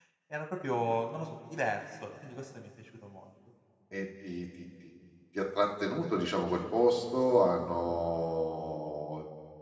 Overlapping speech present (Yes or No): No